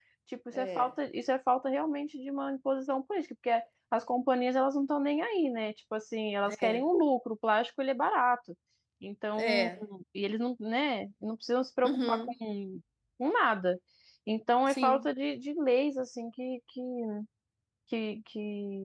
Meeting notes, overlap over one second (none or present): none